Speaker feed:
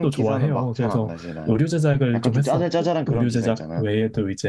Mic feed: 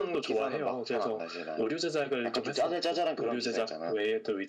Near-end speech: none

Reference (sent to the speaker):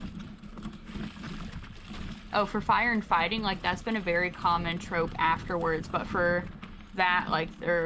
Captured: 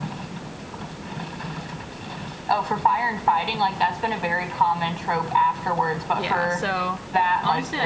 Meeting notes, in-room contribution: present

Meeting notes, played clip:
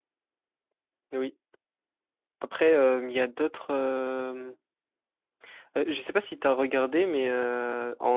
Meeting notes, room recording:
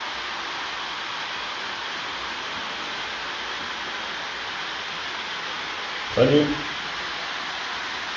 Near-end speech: present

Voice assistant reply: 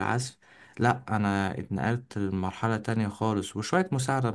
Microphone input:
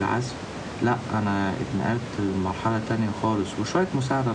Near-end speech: none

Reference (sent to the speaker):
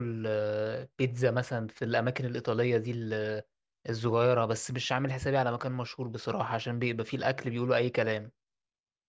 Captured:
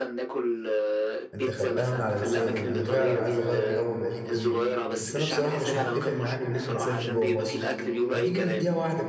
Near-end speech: present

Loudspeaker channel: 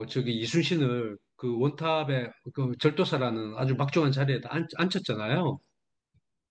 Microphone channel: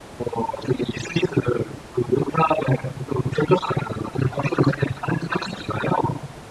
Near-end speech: none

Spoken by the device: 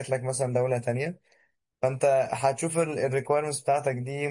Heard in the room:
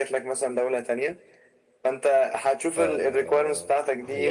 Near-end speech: present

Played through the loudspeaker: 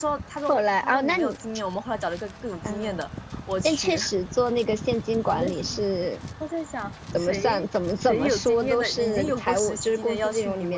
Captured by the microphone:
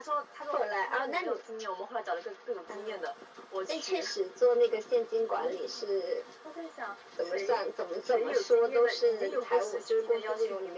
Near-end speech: none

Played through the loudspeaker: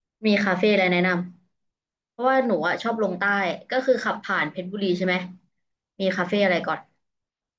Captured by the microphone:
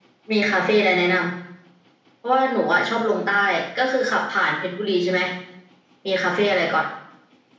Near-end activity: none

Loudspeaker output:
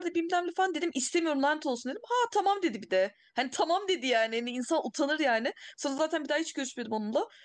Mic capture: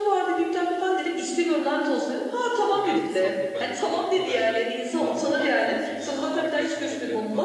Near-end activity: present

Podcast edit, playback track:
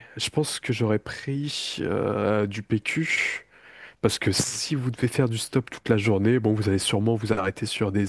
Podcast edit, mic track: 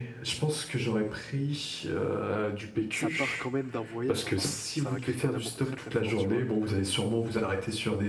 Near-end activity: present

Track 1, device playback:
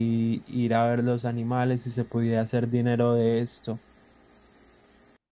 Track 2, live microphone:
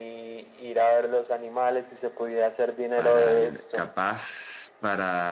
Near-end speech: present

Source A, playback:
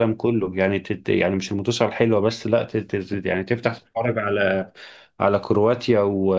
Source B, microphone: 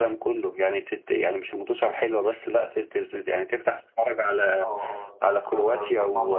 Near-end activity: present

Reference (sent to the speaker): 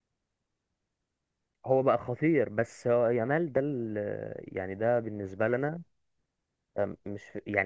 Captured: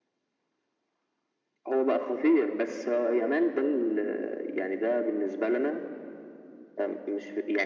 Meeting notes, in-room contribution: none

